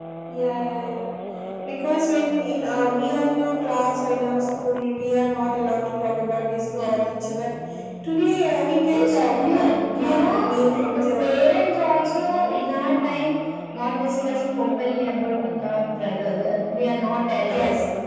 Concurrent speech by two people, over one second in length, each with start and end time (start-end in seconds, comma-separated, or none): 8.9-11.3